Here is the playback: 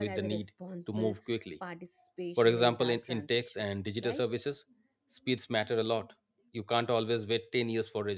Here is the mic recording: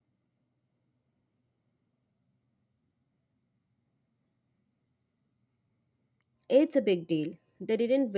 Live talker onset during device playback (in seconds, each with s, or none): 6.5 s